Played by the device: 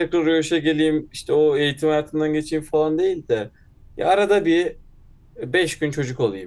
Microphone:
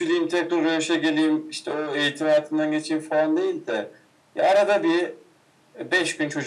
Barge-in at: none

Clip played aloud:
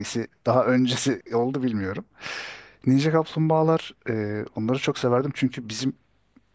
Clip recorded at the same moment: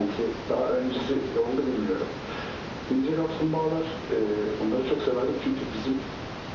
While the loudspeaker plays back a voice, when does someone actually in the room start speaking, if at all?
none

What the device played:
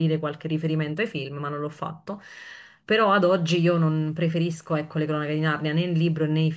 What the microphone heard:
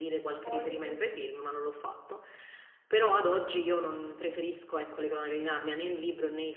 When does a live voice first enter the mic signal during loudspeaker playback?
0.4 s

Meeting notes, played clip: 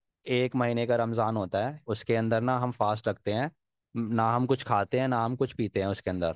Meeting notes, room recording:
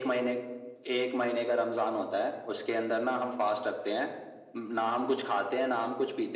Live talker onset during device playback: none

